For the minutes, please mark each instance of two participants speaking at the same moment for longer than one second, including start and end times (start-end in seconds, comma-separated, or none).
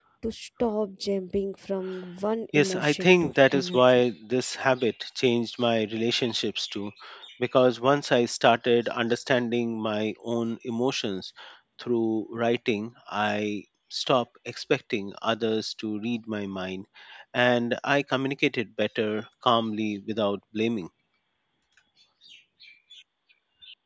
2.5-4.0